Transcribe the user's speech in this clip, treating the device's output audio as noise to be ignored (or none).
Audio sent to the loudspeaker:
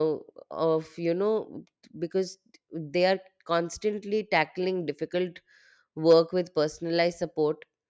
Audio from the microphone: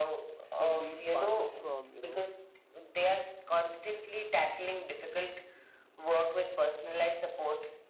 slowly passes from you know